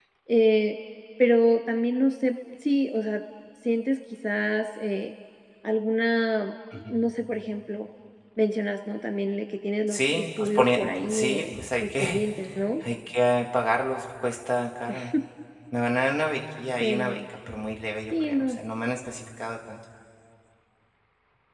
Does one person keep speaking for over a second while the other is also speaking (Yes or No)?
Yes